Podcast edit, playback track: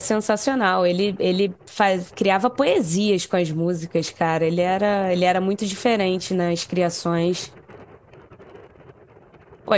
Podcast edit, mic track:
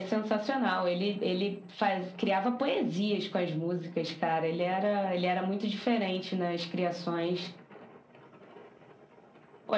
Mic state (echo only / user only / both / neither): echo only